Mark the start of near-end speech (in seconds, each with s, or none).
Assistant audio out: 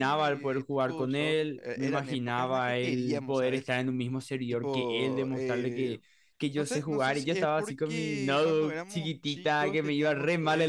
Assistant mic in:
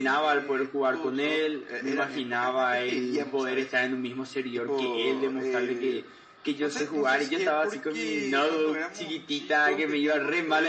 none